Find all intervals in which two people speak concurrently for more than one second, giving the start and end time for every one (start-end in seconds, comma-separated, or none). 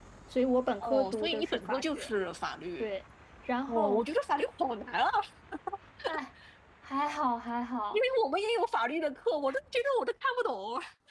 0.8-2.1